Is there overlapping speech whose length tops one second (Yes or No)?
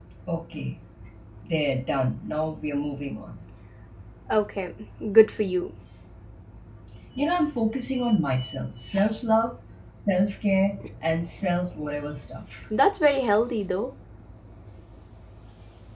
No